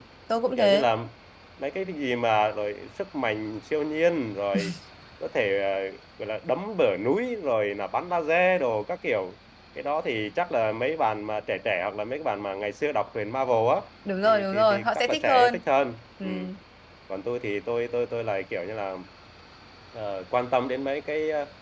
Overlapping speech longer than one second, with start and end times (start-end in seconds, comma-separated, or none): 14.2-15.6